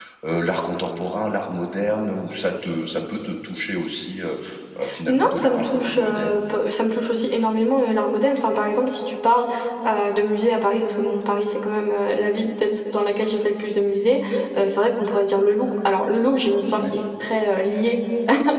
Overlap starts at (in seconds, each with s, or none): 5.1 s